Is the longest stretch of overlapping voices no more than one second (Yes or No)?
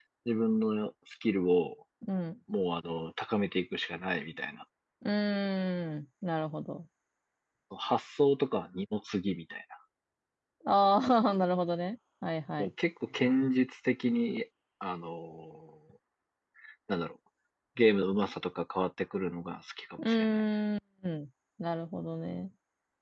Yes